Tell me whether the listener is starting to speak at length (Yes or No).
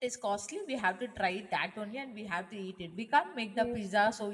No